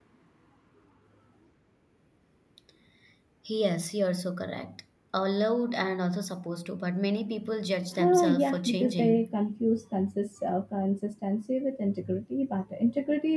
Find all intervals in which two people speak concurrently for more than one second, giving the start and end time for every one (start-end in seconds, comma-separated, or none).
8.0-9.3